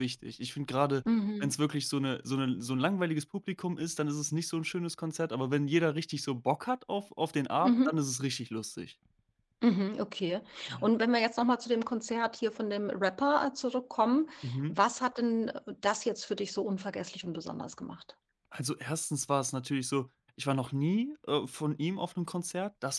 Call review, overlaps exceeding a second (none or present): none